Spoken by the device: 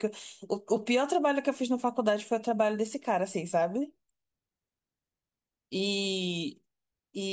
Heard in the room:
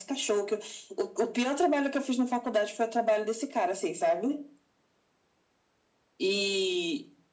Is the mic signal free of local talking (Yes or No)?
Yes